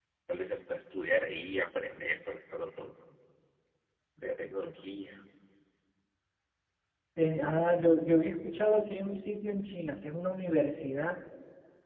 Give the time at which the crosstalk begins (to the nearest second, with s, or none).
none